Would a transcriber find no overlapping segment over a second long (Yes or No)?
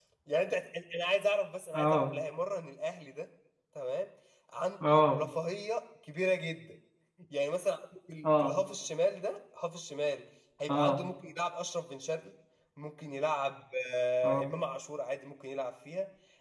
Yes